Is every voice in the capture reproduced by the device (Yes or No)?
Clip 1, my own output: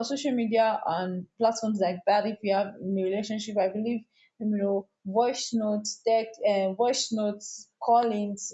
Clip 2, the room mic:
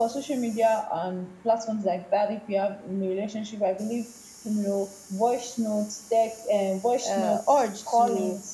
No